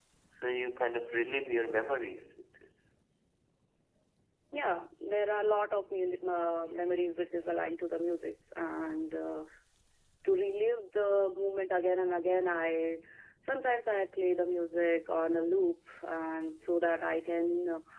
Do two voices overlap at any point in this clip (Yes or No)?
No